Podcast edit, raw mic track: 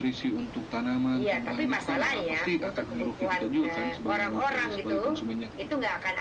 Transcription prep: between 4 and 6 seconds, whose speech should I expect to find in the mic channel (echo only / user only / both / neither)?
echo only